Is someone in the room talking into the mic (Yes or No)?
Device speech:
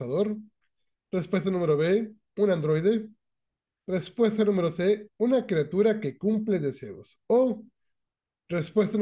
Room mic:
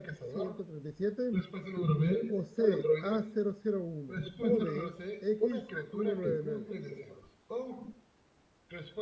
Yes